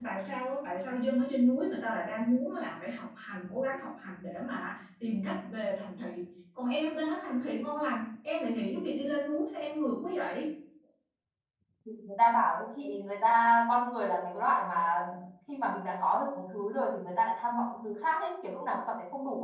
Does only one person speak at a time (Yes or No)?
Yes